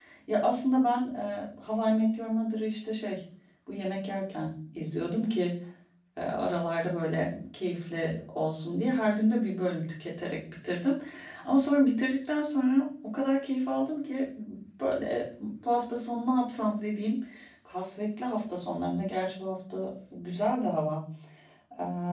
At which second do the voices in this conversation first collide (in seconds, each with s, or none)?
none